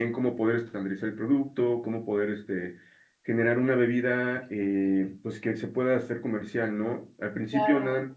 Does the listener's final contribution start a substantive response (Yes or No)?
No